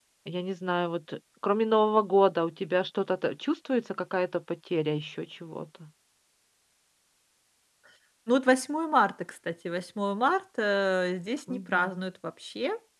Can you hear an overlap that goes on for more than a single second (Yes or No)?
No